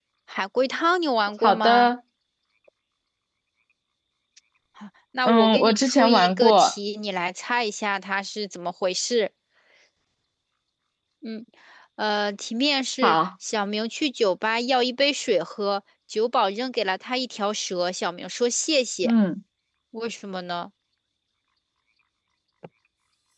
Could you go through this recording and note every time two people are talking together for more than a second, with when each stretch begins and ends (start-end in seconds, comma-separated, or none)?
5.2-6.7